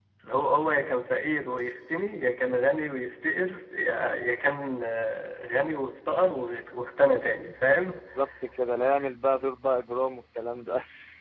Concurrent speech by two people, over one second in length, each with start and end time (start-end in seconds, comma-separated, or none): none